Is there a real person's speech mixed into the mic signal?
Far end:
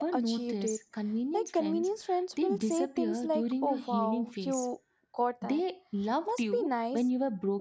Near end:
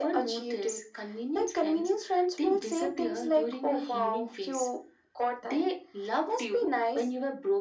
No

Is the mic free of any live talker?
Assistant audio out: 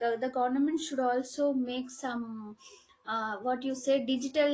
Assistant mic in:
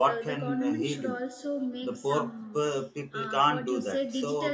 No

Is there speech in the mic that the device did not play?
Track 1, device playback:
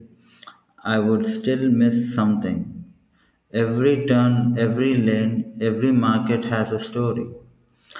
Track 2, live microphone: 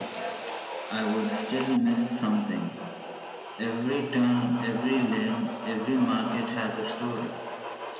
No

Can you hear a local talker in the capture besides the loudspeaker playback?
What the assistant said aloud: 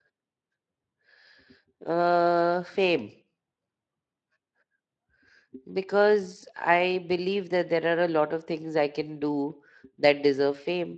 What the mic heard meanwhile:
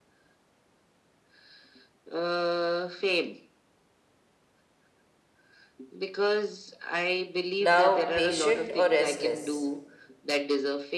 Yes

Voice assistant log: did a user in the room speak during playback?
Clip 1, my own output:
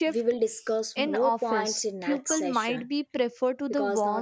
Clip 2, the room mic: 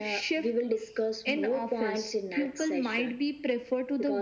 No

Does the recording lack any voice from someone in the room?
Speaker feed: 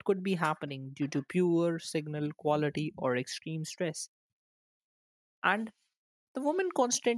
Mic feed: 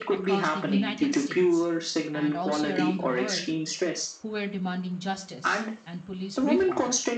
No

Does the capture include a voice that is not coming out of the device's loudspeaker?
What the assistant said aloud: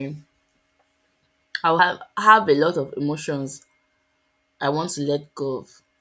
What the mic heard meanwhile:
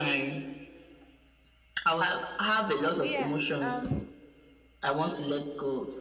Yes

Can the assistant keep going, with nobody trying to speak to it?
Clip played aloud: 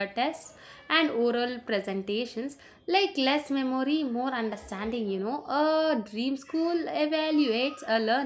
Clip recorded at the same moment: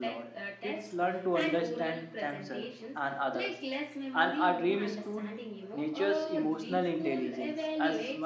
No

